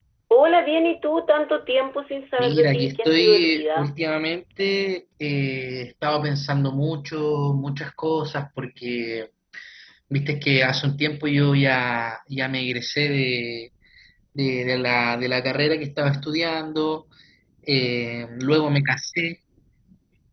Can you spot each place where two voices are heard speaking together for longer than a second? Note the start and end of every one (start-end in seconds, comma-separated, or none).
2.4-3.9